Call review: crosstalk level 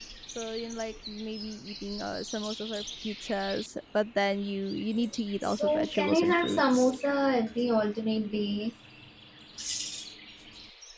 present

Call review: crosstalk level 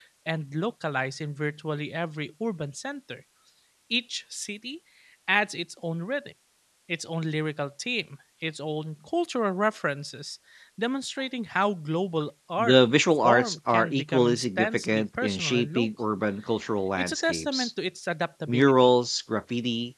present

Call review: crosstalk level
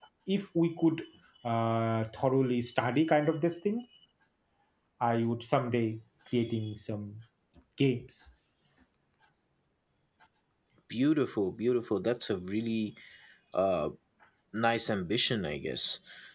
none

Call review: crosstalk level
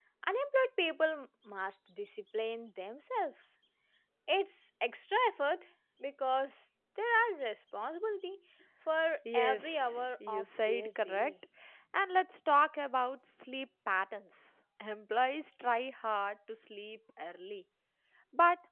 present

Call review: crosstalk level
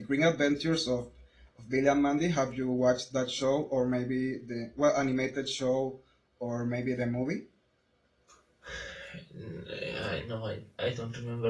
none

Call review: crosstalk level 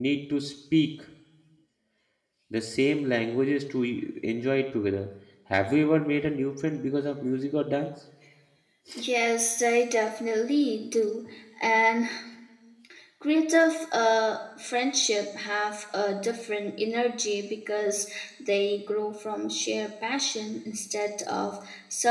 none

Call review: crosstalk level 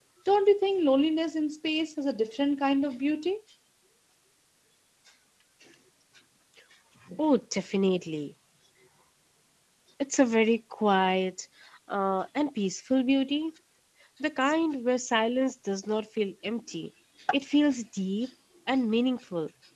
none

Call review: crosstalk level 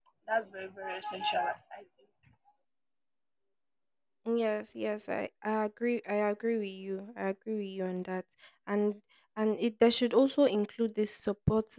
none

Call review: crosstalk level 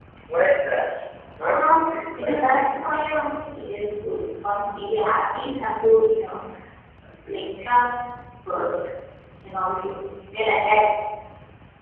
present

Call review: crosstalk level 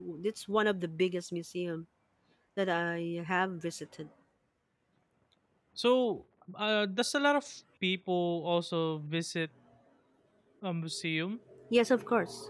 none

